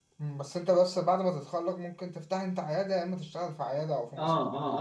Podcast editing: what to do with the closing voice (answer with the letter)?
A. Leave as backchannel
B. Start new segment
B